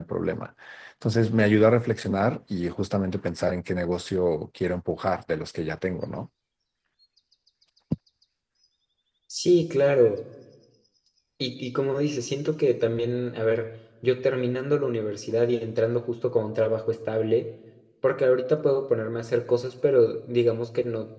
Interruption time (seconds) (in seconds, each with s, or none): none